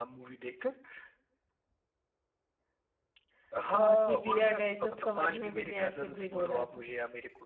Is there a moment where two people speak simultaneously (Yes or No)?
Yes